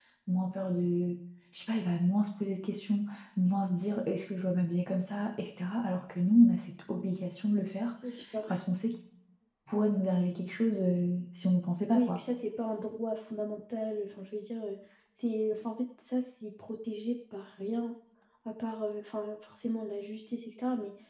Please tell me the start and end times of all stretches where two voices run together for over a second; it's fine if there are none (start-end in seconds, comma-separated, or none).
none